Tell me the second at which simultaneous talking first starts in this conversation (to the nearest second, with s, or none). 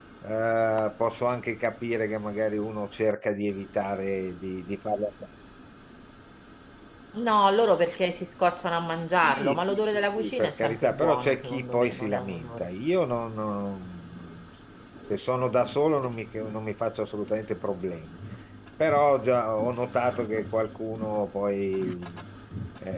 9 s